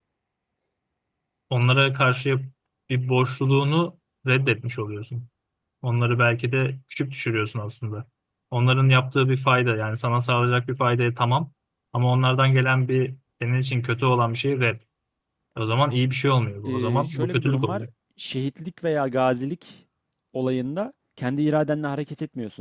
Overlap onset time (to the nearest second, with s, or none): 17 s